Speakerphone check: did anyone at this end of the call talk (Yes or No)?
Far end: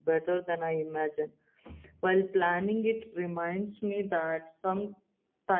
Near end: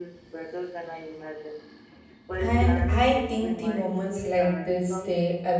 Yes